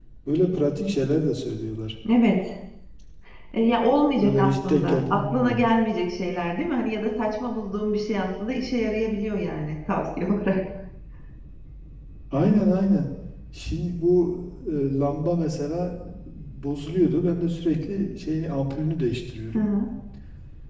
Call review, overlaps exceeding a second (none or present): present